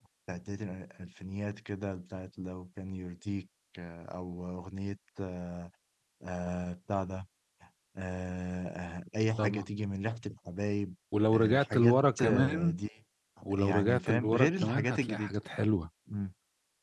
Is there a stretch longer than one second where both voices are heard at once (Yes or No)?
Yes